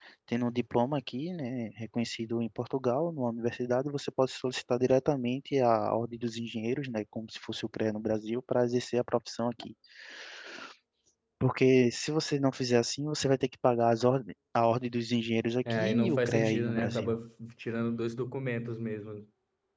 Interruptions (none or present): present